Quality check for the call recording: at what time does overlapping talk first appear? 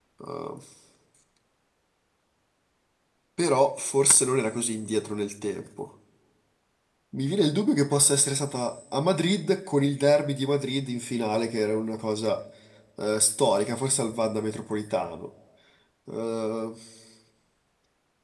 none

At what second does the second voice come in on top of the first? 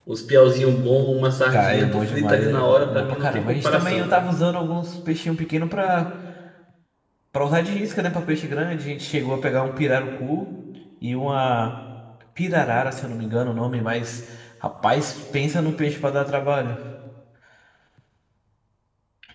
1.5 s

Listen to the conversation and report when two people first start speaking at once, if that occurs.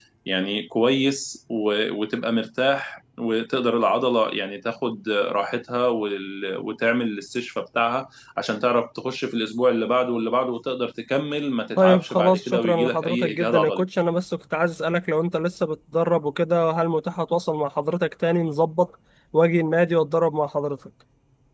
11.8 s

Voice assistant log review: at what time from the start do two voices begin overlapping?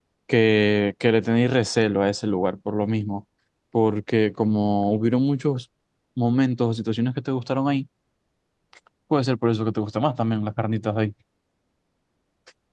none

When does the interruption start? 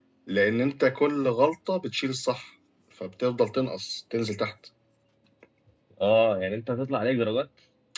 none

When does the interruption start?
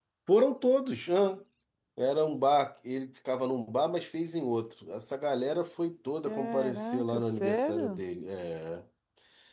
6.3 s

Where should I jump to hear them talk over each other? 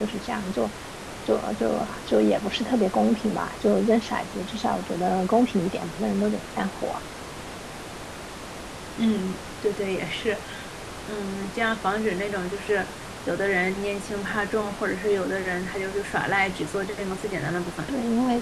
none

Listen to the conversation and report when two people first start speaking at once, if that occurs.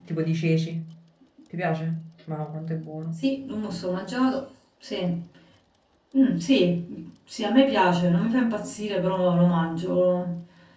none

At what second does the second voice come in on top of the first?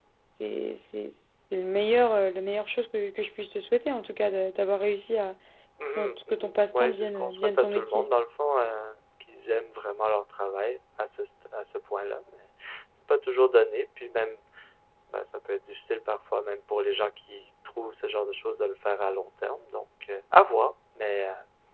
6.0 s

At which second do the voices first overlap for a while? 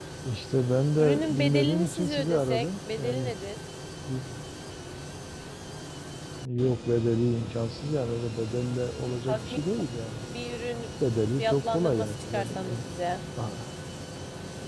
1.0 s

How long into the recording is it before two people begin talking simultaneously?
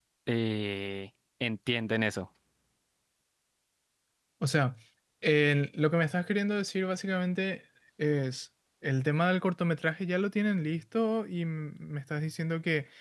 none

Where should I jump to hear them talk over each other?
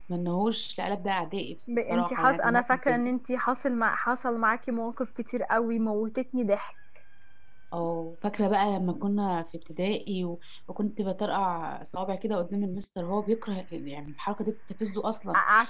1.7 s

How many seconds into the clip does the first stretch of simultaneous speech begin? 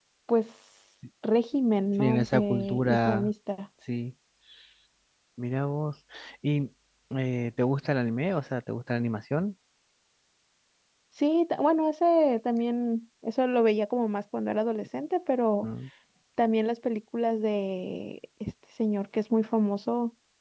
2.0 s

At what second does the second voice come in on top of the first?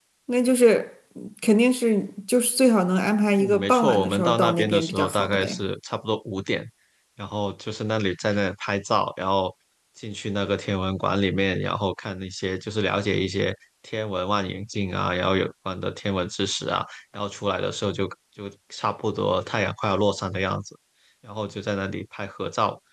3.4 s

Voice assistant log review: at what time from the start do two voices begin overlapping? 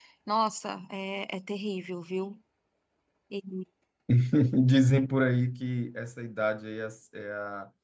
none

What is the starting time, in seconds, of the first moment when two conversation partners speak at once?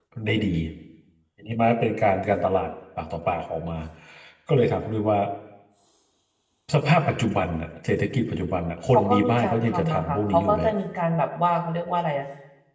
8.9 s

